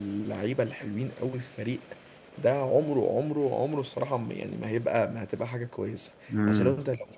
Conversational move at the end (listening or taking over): listening